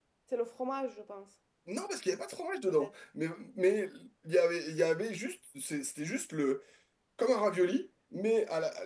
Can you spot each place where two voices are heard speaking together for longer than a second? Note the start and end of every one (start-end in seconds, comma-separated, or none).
none